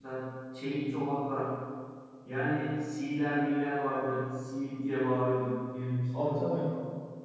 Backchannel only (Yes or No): Yes